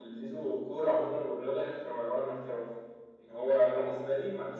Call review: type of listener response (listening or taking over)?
listening